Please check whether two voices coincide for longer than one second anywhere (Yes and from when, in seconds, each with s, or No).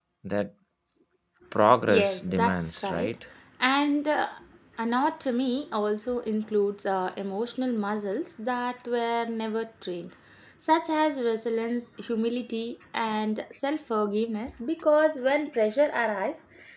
Yes, from 1.9 s